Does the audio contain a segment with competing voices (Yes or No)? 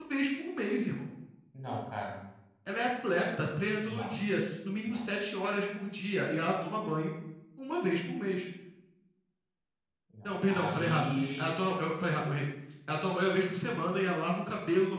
Yes